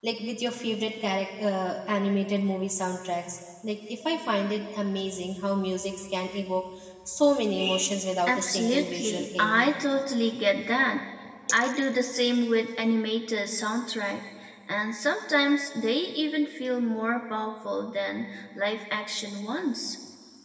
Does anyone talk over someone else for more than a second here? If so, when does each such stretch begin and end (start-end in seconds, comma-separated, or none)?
8.3-9.6